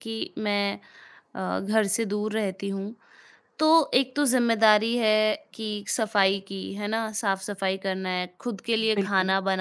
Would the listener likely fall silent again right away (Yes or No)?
Yes